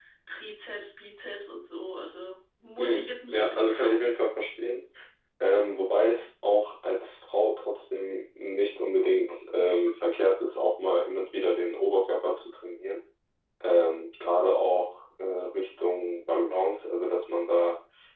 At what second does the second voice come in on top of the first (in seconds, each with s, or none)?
2.8 s